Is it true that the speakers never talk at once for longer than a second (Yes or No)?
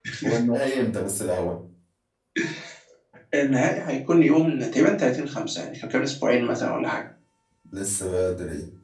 Yes